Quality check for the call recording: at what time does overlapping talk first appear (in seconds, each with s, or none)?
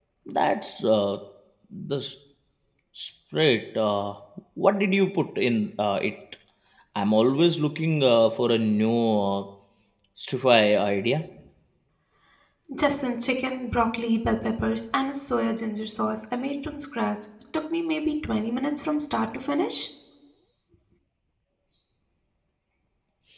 none